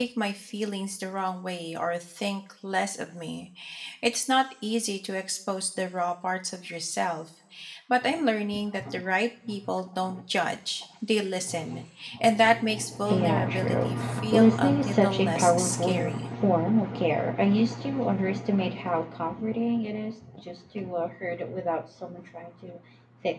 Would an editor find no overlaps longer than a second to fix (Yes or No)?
No